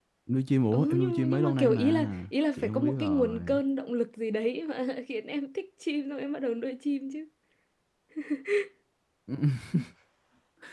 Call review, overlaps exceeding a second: present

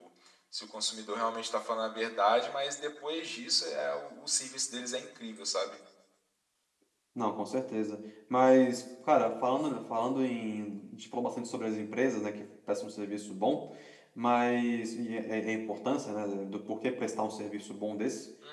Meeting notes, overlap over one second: none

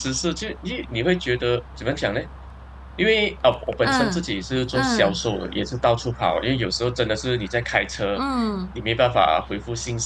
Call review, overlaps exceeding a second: none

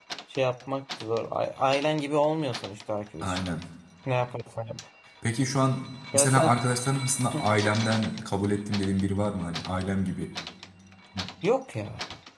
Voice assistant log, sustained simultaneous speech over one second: none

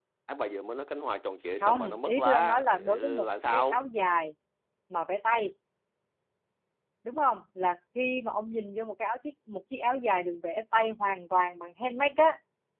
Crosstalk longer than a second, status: present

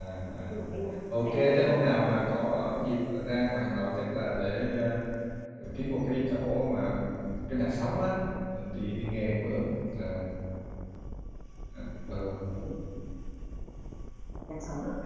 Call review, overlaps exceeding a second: present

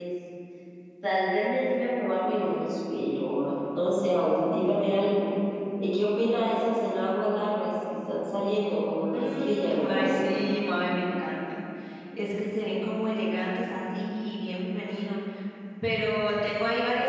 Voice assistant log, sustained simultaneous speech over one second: present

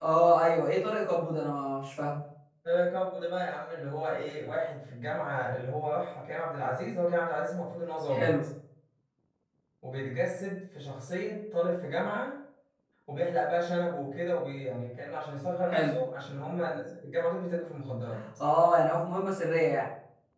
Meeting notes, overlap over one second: none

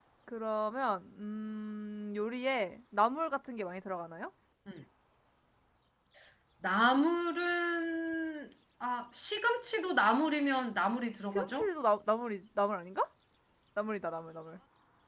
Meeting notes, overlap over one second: none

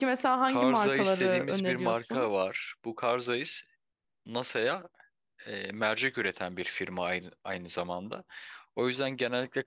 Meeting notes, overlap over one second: present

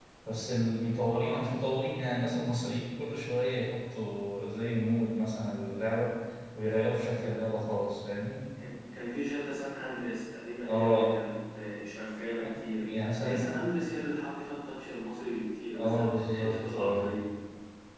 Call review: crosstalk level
present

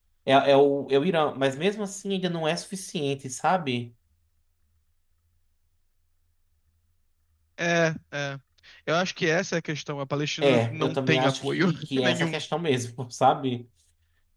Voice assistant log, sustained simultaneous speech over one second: present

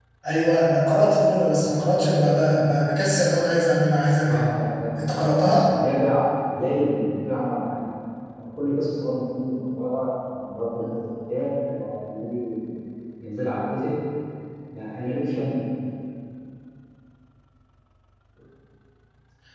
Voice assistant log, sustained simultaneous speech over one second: none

